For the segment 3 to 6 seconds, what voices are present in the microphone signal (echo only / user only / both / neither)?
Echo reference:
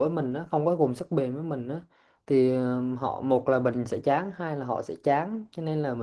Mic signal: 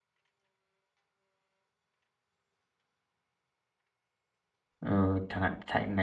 user only